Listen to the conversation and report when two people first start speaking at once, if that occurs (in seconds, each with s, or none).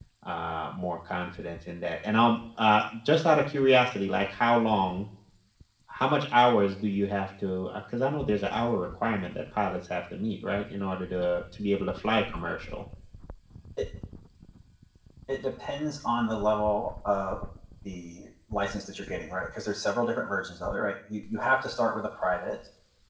none